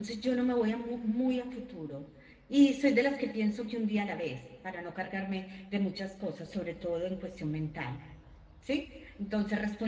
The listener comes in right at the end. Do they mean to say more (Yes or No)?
No